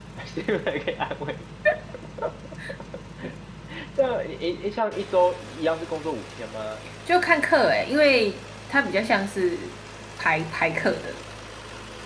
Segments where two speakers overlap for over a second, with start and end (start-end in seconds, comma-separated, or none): none